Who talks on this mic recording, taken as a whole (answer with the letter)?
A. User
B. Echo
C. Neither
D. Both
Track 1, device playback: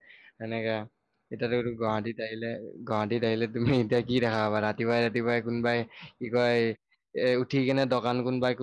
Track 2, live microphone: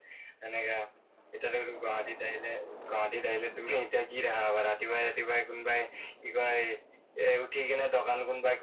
B